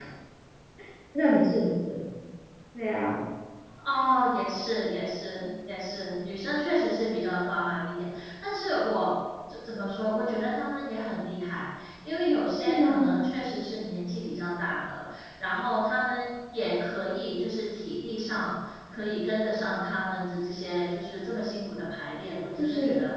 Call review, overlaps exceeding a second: none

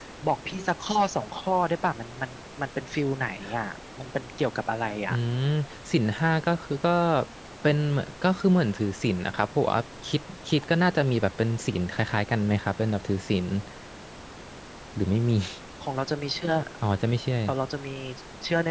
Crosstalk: none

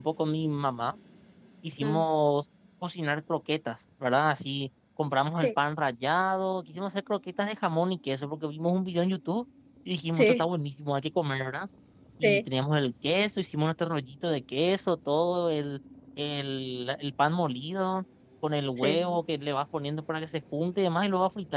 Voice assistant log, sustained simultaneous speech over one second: none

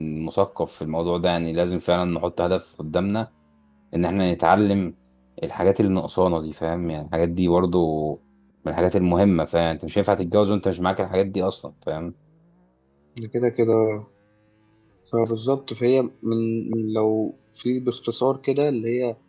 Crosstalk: none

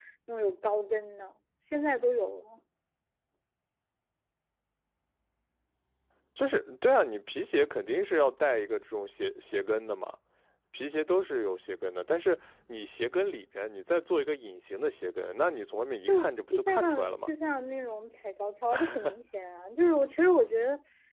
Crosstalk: present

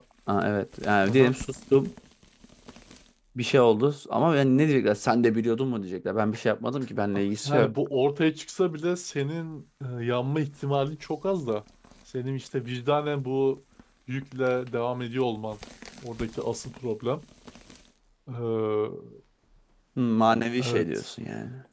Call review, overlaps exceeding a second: none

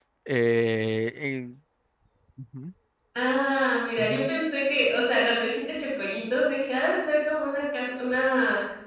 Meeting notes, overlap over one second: none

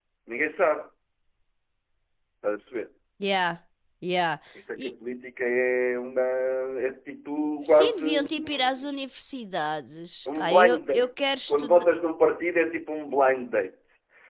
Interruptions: present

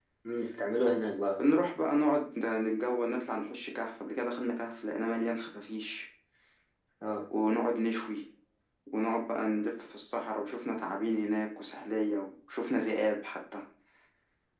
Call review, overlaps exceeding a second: none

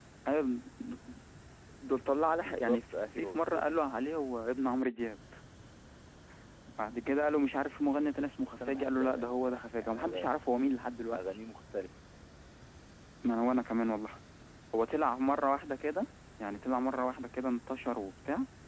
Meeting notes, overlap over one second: present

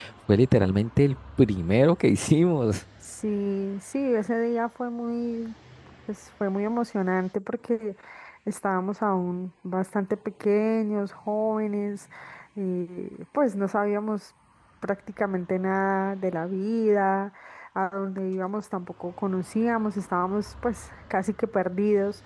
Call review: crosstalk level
none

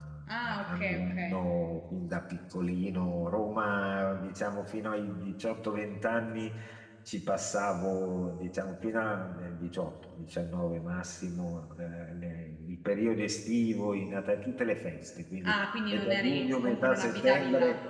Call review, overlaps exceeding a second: present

